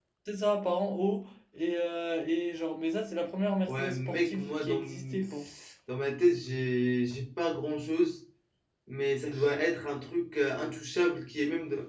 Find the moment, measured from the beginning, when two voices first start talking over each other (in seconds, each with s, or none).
3.7 s